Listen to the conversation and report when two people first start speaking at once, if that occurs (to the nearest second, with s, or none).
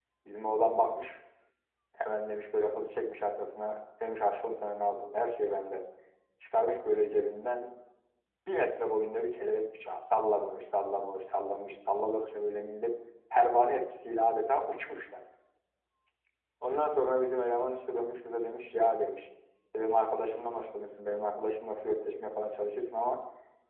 none